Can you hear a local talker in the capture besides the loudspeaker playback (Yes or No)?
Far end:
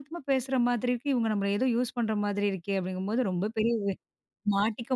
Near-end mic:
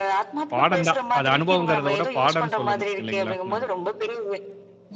Yes